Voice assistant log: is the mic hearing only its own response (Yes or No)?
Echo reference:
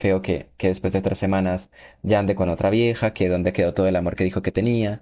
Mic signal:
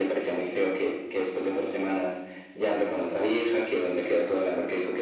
Yes